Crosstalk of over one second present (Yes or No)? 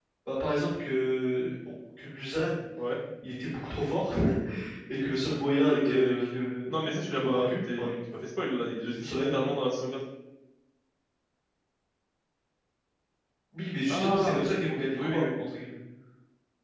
Yes